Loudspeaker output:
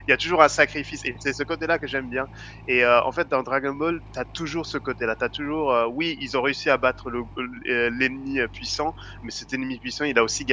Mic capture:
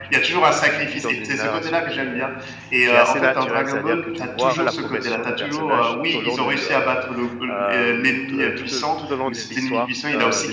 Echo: present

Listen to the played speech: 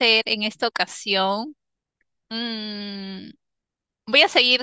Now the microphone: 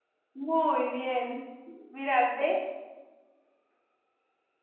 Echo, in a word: none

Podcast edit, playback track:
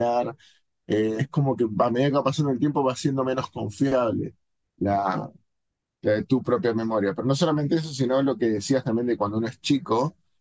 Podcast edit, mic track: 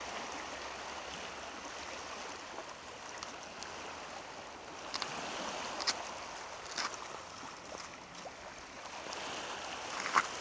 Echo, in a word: none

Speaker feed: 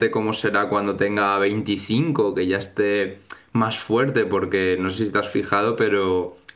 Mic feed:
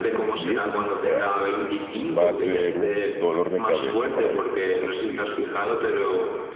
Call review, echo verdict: present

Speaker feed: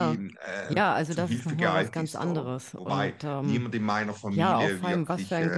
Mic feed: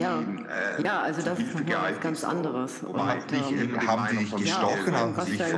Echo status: present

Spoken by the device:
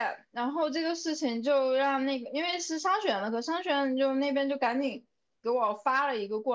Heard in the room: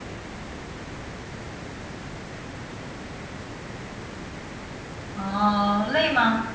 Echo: none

